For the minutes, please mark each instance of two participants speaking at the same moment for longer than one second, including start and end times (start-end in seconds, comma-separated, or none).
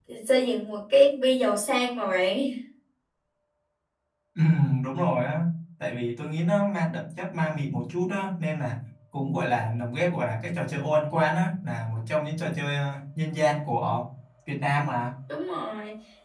none